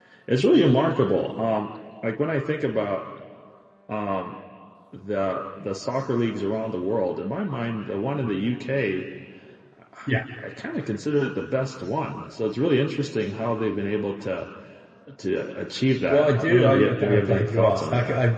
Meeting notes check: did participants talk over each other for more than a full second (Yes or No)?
Yes